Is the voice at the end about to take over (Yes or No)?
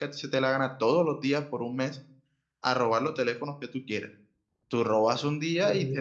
No